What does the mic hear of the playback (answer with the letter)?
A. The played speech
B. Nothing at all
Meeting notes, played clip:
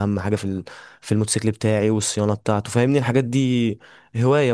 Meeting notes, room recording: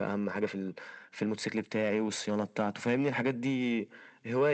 A